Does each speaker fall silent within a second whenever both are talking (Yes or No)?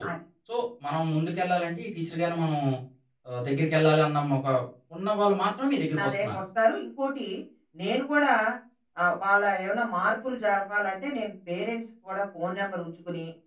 Yes